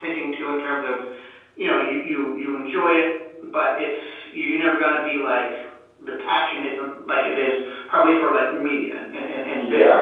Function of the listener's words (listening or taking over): taking over